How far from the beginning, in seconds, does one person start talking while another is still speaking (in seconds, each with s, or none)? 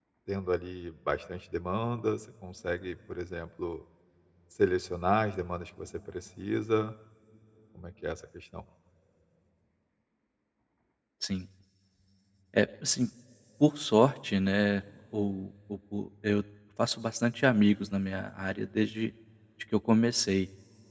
none